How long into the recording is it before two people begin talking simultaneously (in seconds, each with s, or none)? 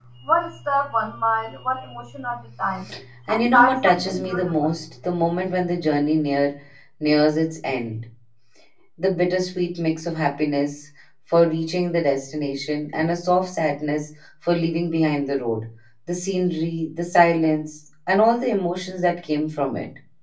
3.3 s